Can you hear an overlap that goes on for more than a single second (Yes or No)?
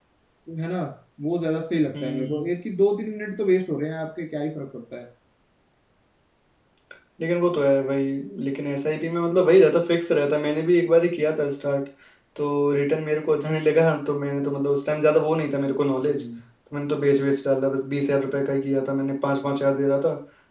No